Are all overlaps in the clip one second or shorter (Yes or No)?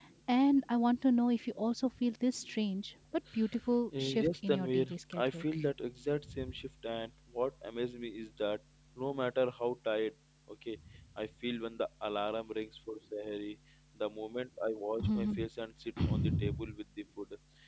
No